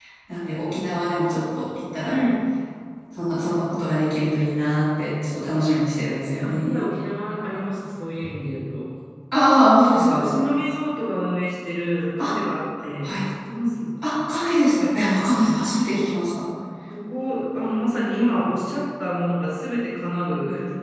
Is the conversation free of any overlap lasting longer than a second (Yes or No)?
Yes